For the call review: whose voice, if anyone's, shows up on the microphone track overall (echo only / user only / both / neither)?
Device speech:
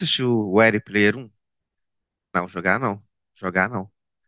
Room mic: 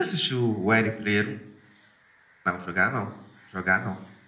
echo only